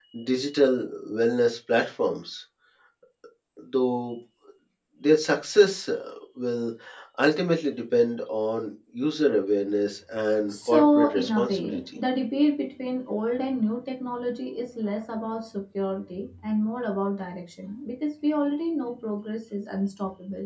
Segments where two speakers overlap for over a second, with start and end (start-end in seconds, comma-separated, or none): 10.5-12.0